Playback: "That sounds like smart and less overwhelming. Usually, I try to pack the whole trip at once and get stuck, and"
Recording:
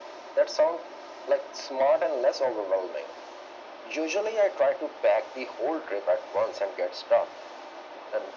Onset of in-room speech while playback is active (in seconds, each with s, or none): none